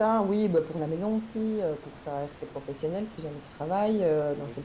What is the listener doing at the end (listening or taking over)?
listening